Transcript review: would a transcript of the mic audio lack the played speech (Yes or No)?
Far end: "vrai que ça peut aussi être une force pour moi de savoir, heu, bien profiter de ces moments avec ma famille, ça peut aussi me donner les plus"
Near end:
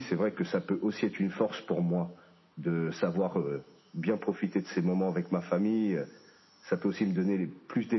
No